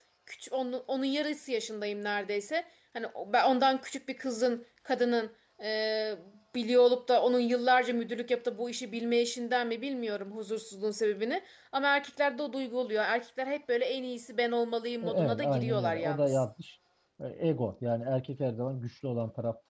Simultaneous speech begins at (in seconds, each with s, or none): 15.0 s